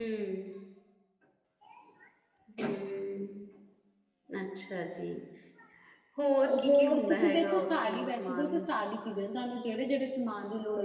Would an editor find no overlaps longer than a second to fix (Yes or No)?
No